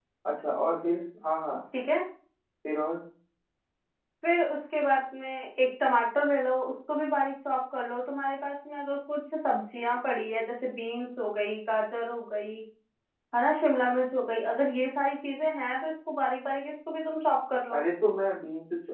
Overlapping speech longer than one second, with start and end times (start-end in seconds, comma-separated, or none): none